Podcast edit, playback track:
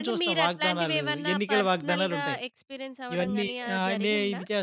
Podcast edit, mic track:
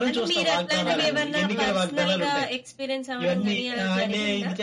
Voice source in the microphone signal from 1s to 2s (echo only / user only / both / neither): both